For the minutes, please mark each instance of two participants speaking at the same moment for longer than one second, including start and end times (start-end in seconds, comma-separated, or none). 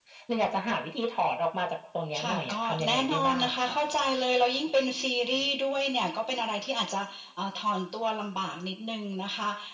2.2-3.7